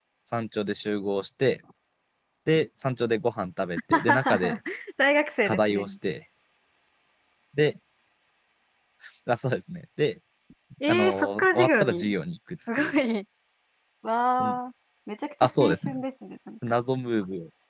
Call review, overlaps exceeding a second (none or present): present